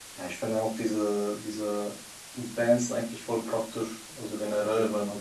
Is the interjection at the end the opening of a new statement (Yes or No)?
No